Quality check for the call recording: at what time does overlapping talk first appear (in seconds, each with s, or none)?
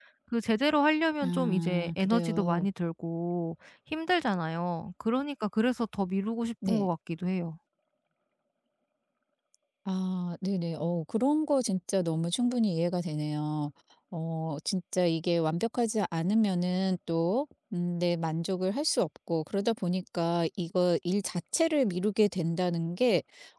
1.2 s